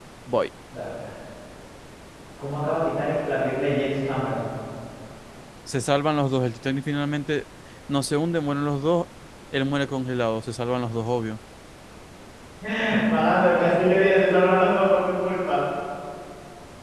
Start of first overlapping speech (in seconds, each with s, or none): none